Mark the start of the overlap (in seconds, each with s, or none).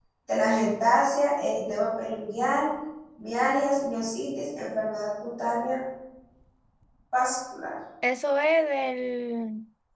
none